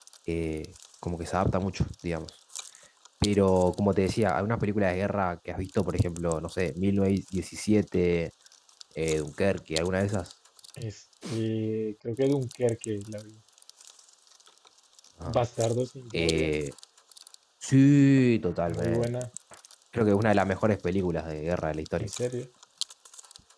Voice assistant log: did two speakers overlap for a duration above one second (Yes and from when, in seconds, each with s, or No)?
No